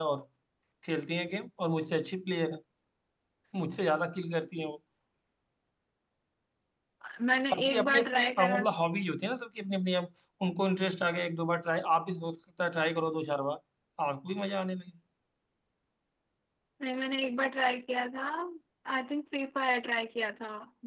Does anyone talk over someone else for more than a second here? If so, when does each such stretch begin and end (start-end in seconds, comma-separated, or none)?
7.5-8.7